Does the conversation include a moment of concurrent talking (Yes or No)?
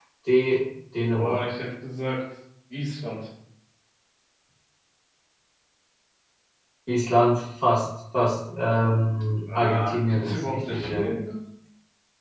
Yes